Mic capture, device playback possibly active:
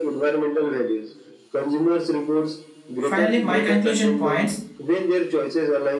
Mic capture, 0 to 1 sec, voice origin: echo only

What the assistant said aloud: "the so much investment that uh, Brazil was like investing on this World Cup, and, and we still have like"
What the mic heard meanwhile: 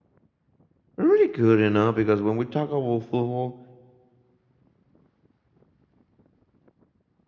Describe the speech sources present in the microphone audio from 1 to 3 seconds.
user only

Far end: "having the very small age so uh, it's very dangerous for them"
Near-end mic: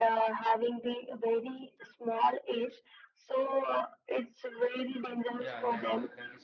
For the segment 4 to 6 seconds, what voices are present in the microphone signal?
both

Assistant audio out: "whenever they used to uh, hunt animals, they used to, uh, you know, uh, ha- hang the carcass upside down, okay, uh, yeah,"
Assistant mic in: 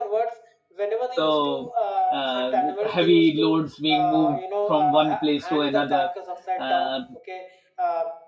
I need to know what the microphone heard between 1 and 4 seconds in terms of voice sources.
both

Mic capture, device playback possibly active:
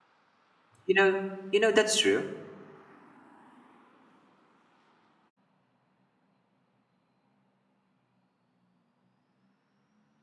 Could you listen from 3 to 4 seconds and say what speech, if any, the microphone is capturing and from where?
neither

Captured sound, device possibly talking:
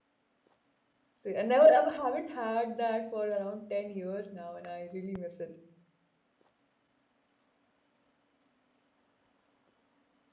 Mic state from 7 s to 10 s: neither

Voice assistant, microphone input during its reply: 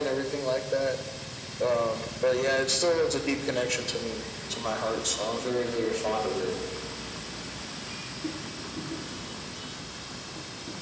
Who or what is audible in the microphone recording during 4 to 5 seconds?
echo only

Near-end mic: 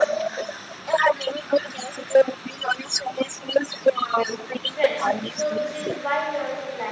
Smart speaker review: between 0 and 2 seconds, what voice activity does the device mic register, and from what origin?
echo only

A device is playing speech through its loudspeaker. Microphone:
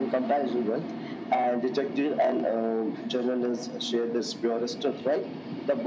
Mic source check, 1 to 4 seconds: echo only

